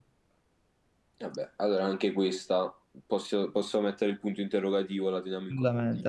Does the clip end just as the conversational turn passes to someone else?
Yes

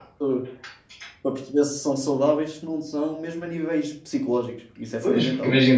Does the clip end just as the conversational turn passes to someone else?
Yes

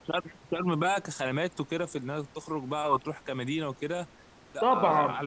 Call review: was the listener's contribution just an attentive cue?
No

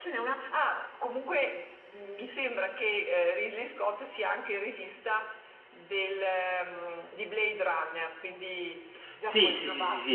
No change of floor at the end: No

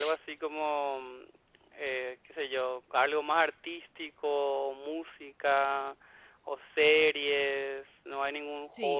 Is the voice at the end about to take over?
Yes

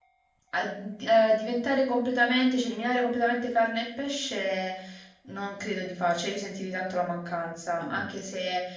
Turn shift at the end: No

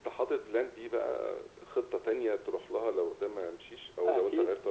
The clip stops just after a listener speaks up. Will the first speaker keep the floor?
No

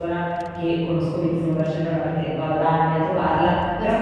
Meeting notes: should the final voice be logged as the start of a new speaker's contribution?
No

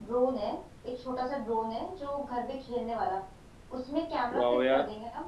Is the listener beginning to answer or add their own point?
No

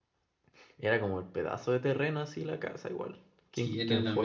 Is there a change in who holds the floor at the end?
Yes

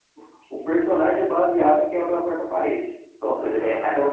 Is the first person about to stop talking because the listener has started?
No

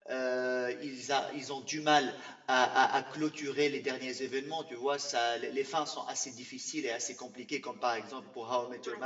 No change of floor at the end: Yes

